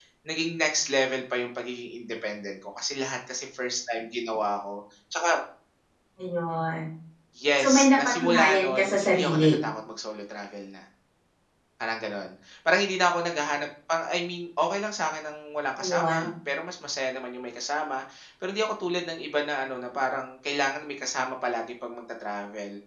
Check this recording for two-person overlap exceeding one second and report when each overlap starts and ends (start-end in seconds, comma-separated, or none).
7.6-9.5